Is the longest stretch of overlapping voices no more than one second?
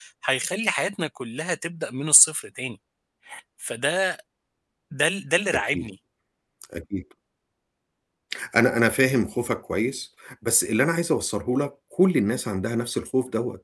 Yes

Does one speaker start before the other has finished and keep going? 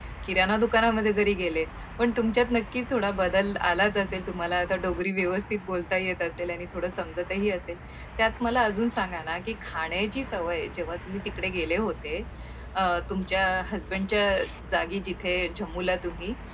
No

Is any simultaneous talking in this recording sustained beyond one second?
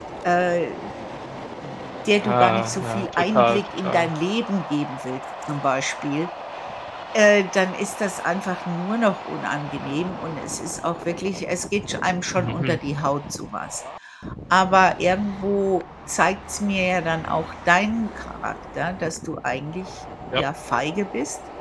Yes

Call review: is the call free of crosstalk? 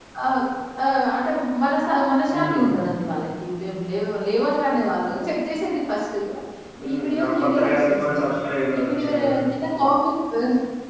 No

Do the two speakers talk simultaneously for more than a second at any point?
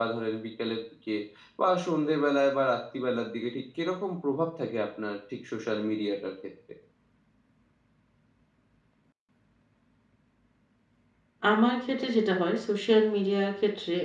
No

